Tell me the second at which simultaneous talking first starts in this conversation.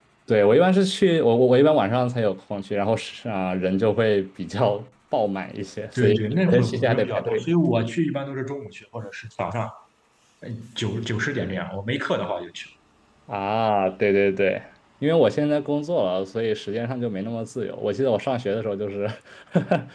6 s

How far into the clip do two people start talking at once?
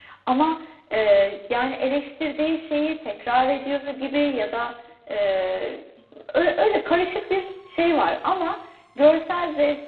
none

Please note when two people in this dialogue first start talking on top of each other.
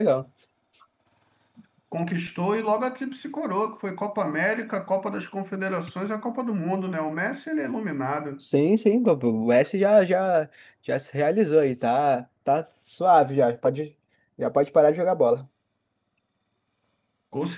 none

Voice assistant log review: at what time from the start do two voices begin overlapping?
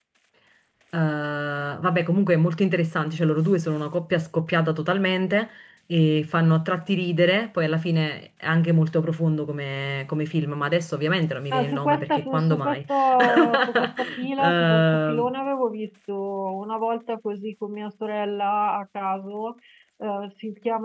12 s

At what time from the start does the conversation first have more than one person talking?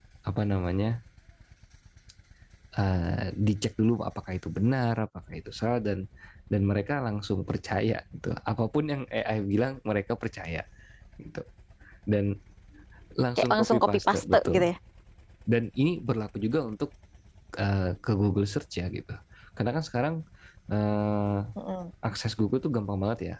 13 s

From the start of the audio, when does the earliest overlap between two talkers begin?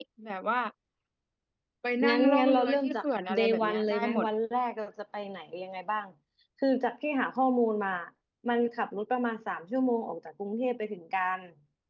2 s

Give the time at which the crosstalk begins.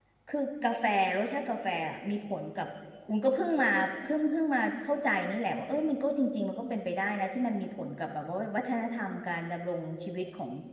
none

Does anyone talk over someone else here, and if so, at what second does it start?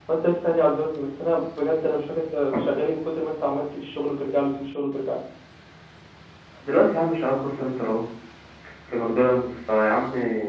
none

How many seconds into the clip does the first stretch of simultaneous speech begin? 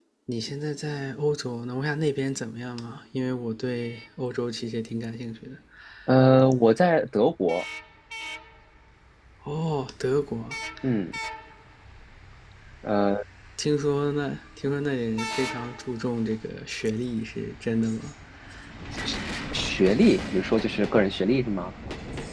none

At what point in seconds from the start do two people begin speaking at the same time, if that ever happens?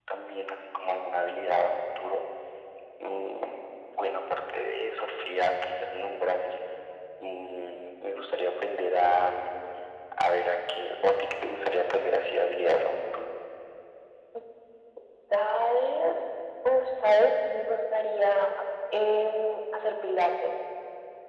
none

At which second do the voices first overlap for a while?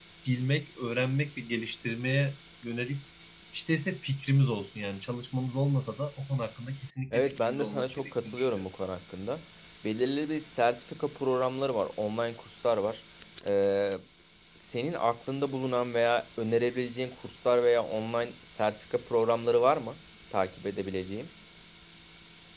7 s

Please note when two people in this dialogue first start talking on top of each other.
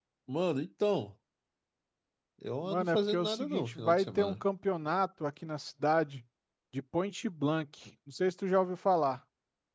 3 s

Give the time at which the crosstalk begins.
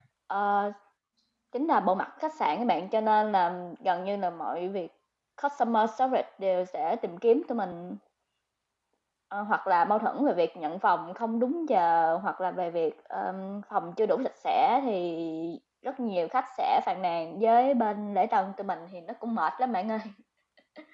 none

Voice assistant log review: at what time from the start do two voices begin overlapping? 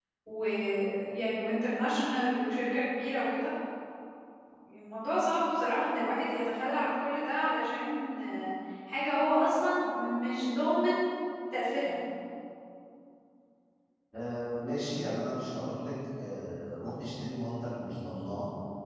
none

